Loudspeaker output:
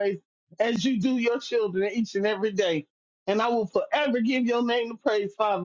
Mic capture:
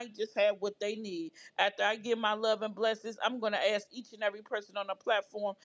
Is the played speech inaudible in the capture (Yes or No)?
Yes